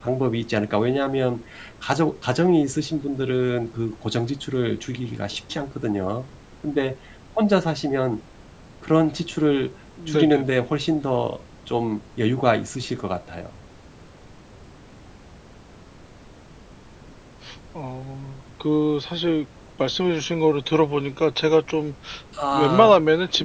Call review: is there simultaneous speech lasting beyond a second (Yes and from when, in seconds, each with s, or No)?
No